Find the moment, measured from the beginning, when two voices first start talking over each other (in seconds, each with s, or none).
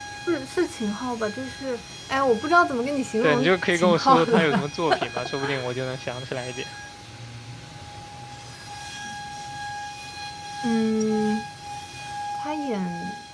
3.2 s